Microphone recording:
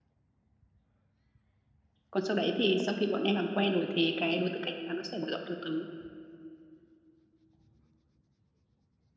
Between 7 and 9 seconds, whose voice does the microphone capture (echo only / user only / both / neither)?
neither